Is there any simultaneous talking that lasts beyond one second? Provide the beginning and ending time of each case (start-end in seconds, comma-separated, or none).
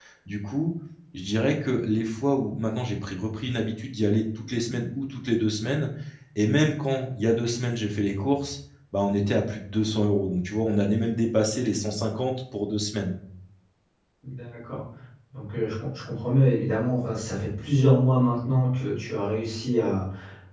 none